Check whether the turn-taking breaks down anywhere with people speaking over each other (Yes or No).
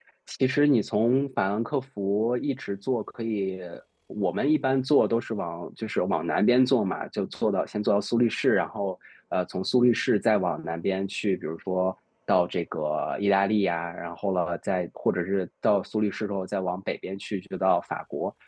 No